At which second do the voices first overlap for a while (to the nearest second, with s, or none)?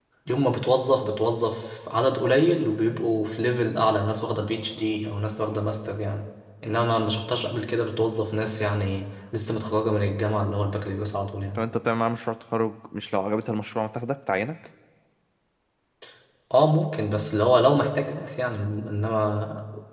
none